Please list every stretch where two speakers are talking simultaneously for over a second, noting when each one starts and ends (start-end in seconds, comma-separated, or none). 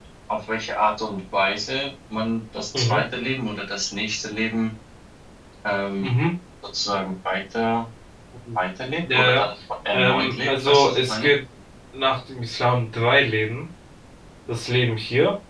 9.9-11.3